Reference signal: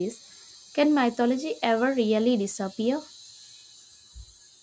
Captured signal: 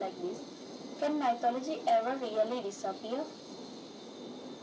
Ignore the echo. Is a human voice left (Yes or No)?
No